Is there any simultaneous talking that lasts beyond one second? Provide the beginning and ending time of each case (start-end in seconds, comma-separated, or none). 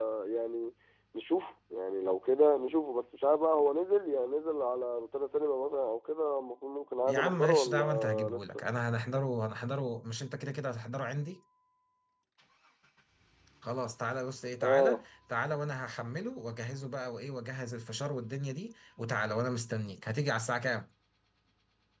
7.1-8.6